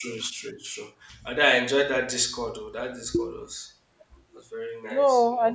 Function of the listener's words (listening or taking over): taking over